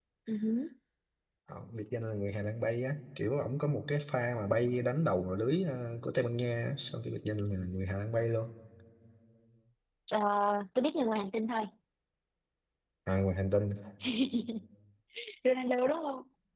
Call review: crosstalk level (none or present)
none